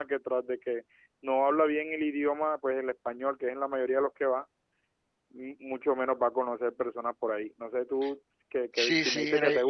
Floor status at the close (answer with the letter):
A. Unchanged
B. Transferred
B